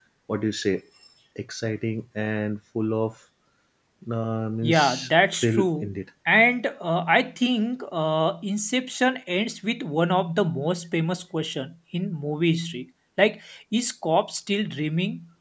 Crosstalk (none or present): present